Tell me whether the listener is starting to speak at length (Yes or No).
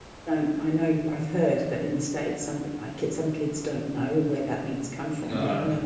No